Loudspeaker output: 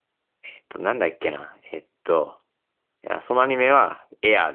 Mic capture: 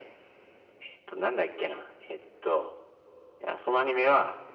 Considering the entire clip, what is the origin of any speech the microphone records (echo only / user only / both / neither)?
echo only